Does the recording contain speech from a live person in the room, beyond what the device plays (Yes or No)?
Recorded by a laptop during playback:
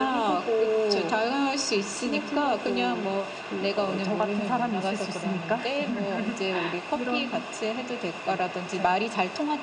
No